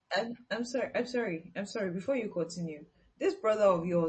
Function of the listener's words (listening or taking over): listening